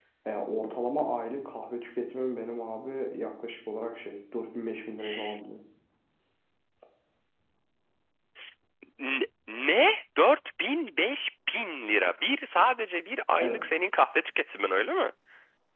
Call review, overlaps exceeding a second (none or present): none